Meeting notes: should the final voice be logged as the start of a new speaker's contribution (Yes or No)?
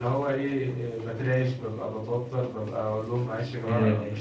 No